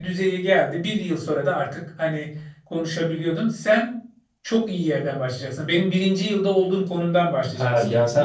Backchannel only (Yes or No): No